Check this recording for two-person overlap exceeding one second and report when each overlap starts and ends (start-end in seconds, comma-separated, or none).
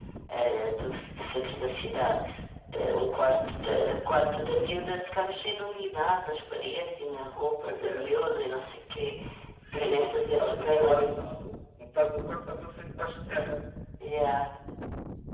9.7-11.2